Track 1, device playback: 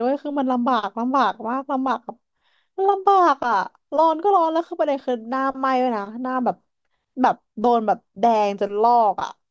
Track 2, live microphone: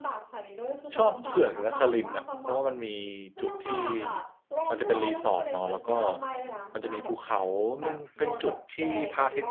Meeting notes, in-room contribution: present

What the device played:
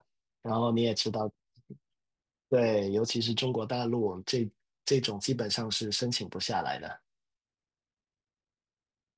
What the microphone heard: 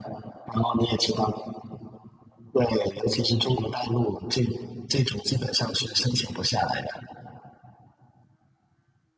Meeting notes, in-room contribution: none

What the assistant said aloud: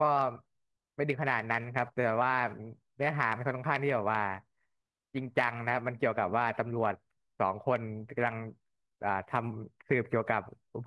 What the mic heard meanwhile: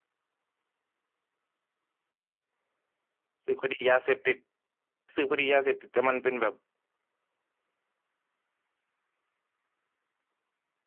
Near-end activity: present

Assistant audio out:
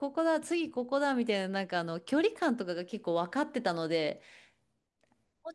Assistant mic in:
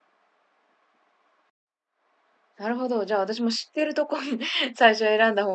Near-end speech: present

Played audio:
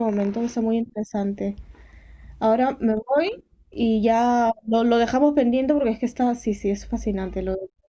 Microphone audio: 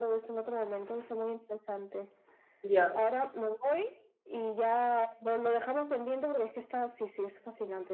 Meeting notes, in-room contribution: present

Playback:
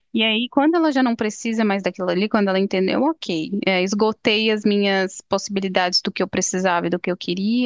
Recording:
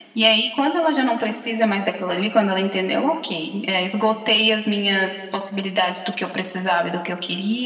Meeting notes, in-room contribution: none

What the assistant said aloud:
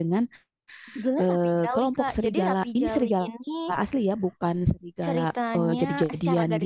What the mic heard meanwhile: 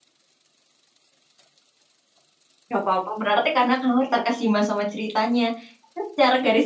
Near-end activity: present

